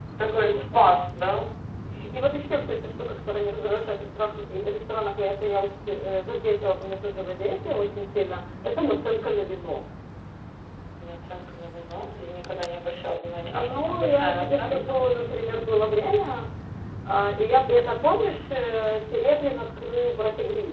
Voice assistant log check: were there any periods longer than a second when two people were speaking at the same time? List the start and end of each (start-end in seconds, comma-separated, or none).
13.5-14.8